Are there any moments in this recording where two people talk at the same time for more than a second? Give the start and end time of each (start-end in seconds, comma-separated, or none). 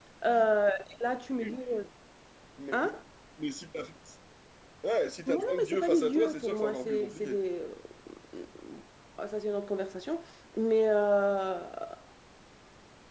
5.3-7.4